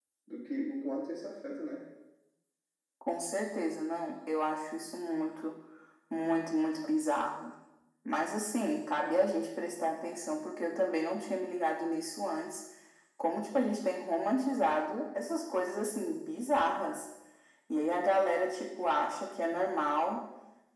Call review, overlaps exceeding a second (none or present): none